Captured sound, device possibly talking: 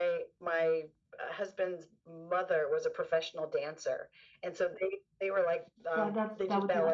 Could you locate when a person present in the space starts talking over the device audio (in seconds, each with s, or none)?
6.0 s